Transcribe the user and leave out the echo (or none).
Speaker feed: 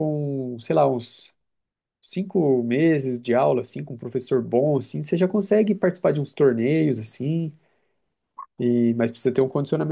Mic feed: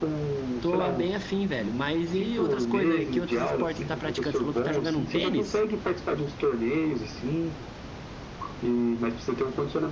tô a- bem afim, velho. Mas e outras coisas aí, que outros esportes você tá praticando? Você falou que tá jogando um tênis?